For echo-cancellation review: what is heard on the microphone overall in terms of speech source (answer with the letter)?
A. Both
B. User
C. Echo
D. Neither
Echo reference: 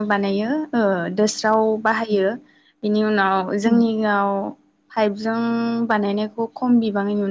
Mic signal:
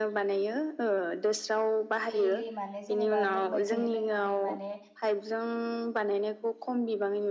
A